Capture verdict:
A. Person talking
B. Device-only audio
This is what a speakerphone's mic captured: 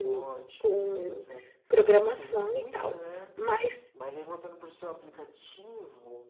A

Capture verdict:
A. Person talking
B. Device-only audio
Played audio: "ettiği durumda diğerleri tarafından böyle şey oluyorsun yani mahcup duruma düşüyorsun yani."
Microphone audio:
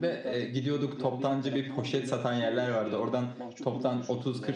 A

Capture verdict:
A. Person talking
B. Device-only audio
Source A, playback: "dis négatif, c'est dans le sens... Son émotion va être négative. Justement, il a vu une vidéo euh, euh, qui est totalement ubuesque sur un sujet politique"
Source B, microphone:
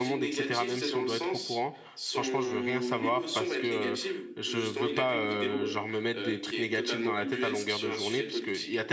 A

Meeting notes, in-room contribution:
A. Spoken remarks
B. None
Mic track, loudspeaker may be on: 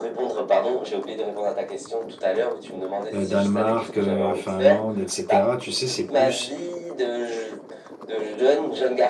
A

